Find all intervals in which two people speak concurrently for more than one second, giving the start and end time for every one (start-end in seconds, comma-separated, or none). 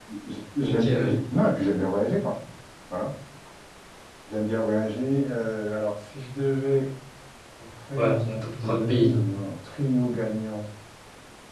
8.0-9.2